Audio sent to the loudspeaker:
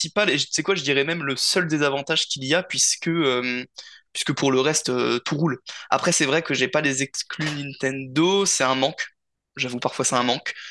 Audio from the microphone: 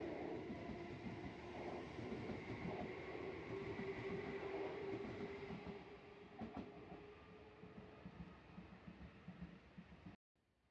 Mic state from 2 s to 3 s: neither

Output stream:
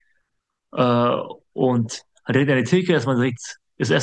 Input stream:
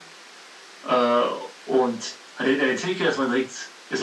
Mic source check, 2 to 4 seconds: echo only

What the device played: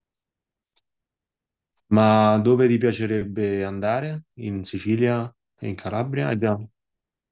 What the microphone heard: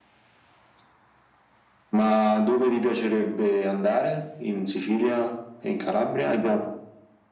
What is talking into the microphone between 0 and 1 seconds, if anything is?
neither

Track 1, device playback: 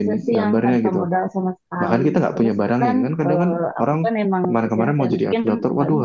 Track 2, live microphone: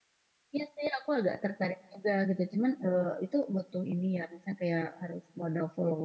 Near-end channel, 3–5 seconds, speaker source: user only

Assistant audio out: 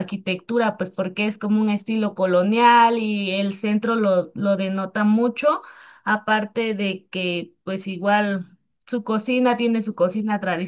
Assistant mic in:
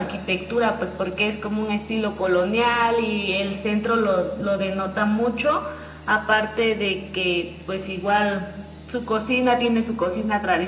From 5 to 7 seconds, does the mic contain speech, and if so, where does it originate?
echo only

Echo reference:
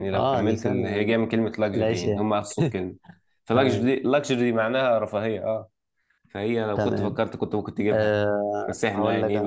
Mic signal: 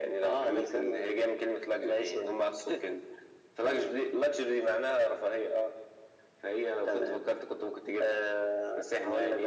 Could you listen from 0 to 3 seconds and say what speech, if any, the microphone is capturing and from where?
echo only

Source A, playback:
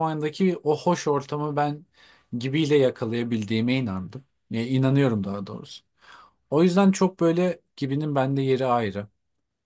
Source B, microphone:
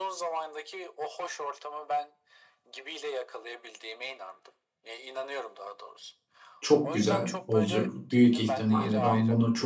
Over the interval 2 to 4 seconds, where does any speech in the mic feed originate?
echo only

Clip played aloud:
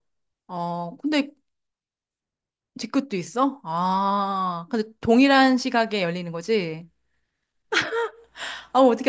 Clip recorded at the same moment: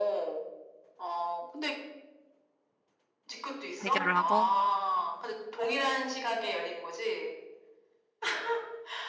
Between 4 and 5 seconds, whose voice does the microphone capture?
both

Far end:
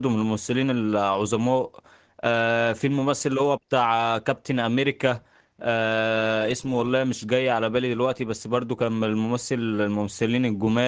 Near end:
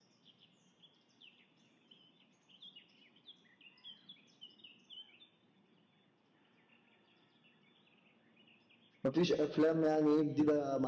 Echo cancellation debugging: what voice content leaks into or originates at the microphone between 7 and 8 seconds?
neither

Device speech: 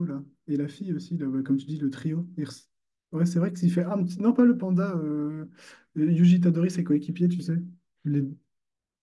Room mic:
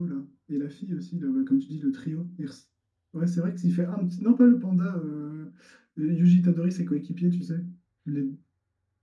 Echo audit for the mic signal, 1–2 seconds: echo only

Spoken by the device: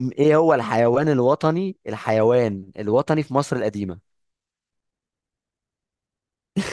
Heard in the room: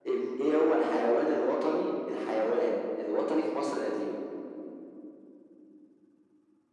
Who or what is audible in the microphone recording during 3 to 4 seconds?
echo only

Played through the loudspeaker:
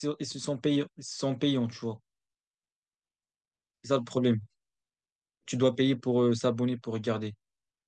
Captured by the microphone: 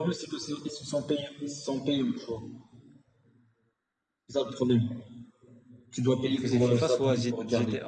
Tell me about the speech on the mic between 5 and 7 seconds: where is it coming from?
both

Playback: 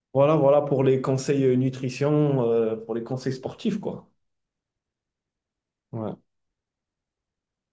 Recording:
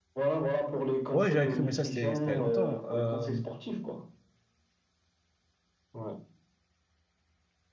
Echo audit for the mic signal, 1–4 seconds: both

